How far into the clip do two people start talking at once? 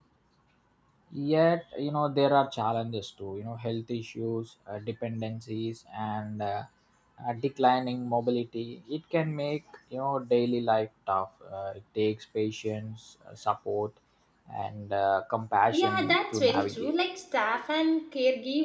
16 s

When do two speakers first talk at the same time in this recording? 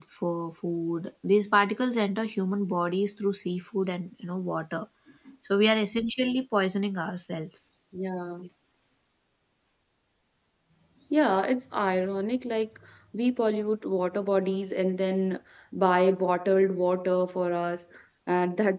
none

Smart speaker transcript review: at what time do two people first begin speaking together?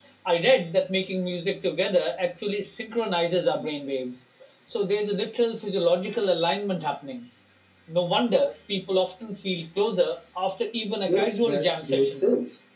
11 s

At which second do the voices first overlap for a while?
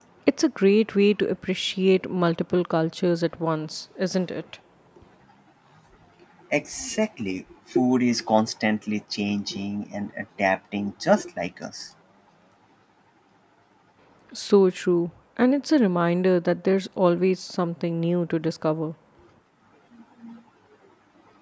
none

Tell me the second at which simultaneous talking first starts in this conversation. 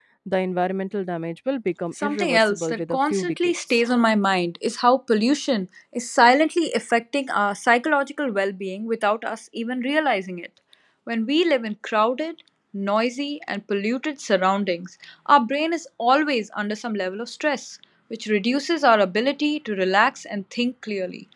2 s

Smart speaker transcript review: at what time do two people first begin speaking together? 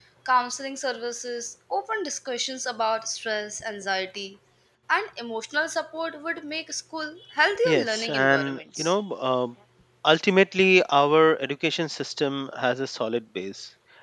8 s

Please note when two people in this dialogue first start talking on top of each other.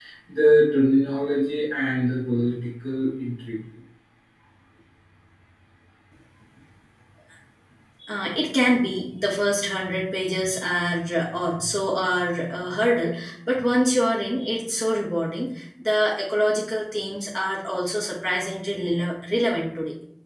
none

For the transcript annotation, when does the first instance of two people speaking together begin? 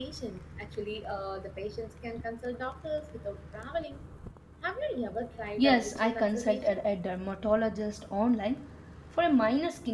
6 s

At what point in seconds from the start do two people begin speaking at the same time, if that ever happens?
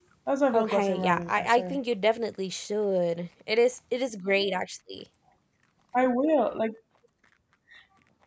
1 s

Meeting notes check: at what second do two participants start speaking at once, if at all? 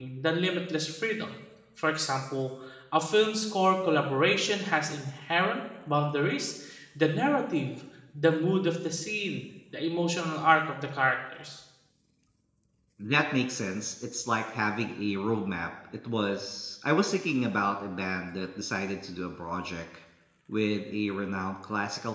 none

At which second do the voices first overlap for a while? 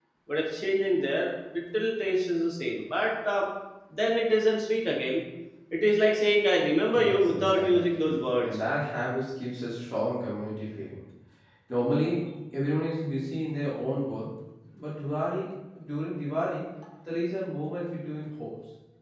7 s

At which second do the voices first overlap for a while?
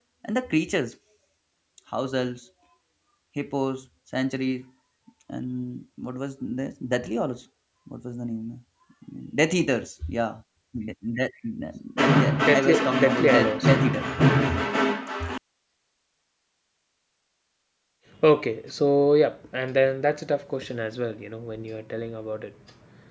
12 s

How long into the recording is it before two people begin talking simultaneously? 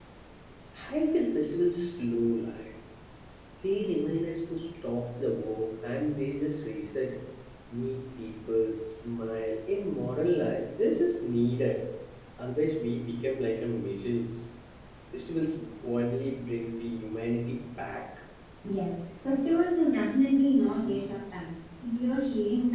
none

